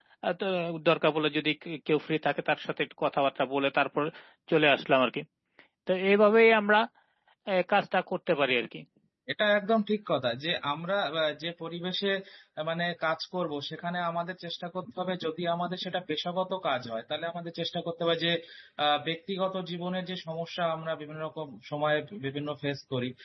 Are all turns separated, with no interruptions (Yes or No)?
Yes